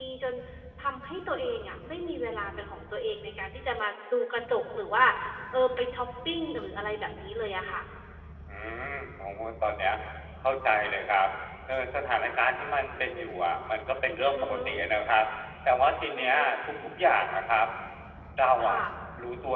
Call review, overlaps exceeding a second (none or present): none